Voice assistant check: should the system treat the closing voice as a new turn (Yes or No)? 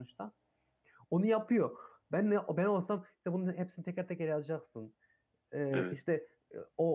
No